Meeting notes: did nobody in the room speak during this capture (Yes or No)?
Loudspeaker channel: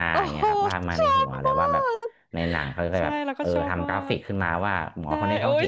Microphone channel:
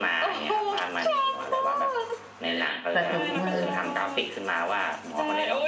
No